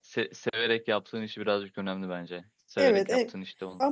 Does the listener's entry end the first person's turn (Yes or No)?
Yes